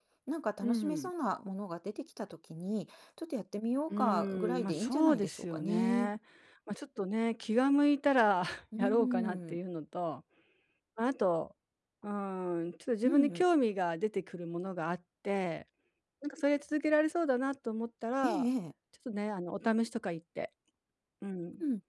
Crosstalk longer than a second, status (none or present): present